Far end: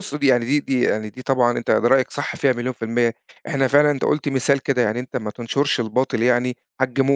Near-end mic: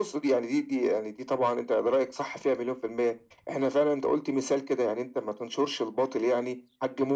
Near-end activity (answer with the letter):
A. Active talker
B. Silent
B